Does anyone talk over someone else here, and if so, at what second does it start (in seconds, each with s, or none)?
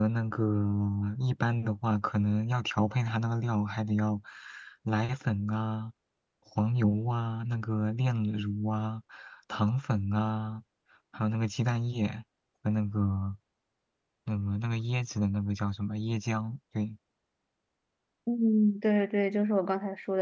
none